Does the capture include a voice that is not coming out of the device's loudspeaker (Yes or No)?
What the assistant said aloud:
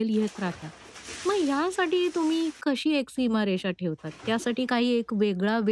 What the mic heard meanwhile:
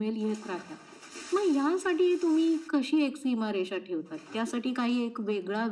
No